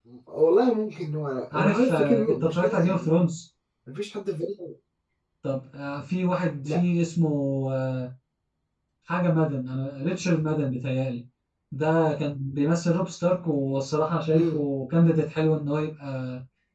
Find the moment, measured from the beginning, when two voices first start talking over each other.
1.5 s

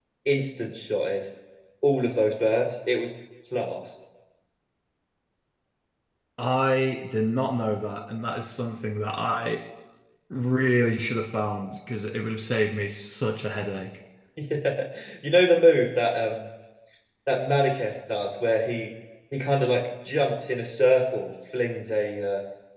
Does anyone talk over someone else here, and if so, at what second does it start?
none

